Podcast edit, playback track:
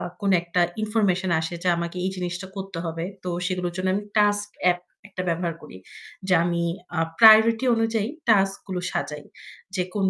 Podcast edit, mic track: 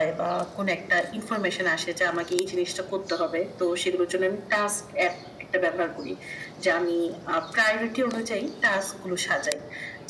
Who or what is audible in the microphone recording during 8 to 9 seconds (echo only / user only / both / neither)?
echo only